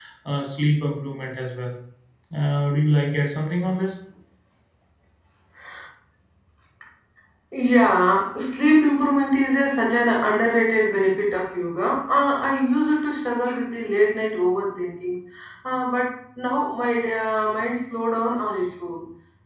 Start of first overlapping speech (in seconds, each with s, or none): none